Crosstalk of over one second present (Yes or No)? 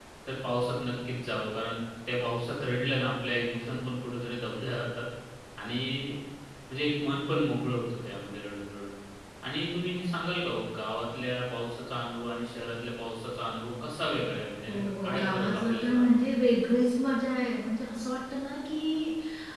Yes